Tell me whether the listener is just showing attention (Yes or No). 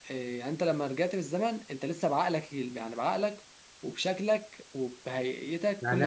No